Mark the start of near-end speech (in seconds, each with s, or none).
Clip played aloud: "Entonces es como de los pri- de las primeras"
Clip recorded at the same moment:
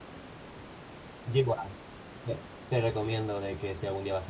1.2 s